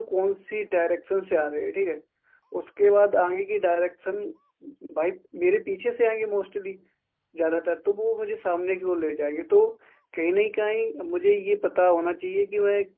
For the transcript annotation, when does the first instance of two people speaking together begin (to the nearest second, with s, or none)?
none